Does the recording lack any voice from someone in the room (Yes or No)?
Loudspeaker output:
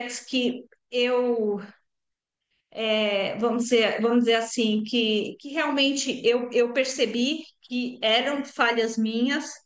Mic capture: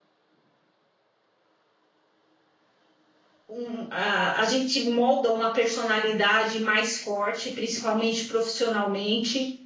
No